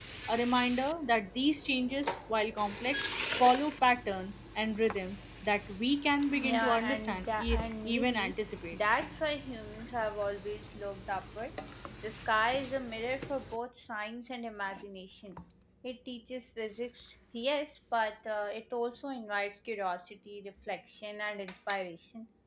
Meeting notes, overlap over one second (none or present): present